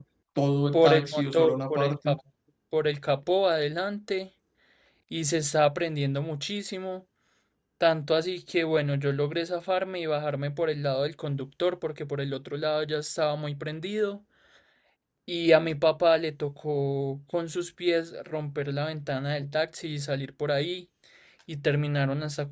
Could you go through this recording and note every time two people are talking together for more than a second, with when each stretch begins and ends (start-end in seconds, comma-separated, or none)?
0.7-2.2